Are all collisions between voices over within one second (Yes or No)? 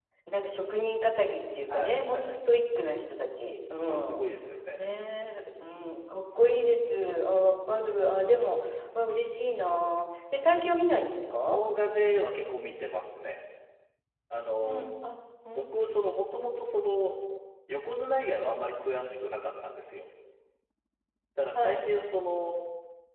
Yes